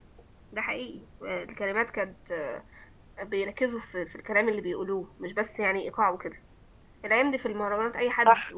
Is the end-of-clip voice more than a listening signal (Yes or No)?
No